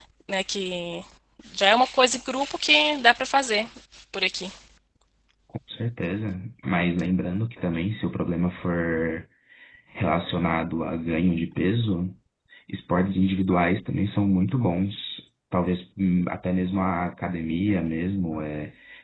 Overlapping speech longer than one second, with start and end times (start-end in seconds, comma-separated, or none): none